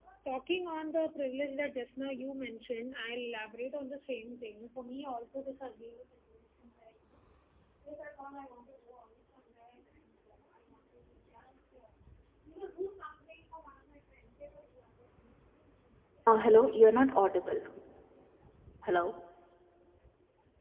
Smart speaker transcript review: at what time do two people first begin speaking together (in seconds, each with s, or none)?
none